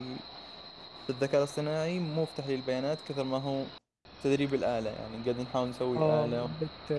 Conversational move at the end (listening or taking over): taking over